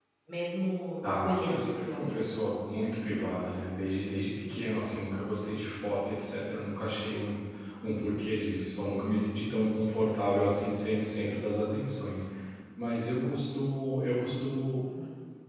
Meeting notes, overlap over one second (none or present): present